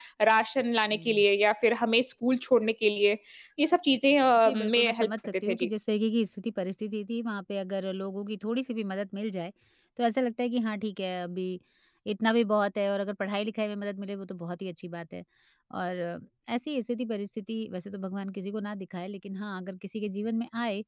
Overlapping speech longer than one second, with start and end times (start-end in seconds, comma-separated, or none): 4.4-5.7